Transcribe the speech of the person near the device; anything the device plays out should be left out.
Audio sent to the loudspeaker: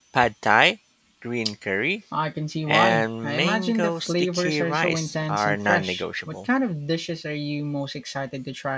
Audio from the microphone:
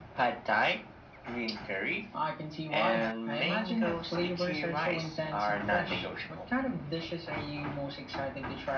none

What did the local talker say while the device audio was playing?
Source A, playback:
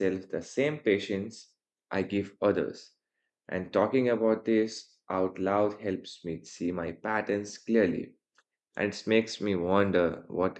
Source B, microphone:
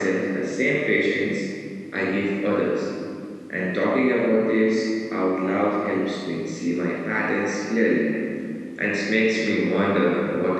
none

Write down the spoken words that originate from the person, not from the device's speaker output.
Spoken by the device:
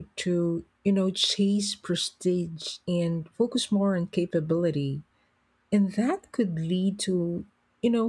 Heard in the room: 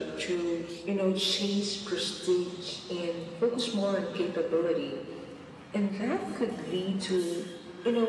none

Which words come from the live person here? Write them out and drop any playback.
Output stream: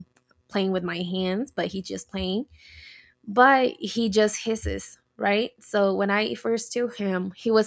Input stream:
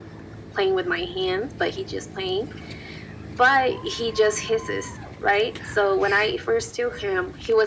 none

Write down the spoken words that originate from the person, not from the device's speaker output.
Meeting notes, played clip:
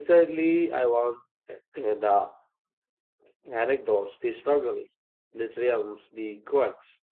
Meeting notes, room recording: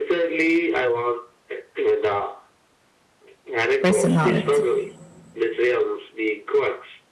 personality?

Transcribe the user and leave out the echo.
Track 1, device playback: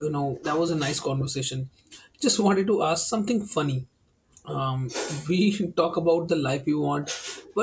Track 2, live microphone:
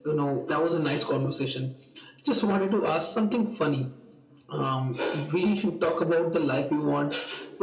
none

